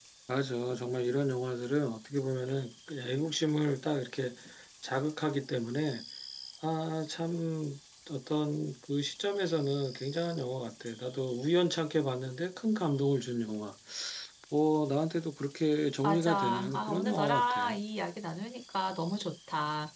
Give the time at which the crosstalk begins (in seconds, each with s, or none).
16.0 s